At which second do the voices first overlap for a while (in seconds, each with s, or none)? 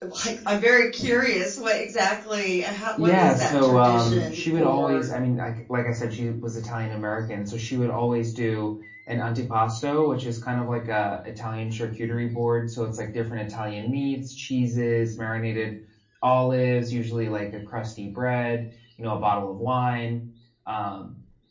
3.0 s